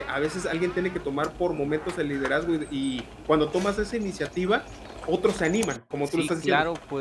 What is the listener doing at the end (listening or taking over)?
taking over